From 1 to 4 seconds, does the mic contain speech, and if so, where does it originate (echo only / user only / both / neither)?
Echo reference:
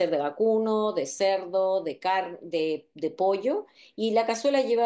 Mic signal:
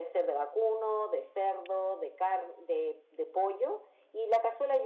echo only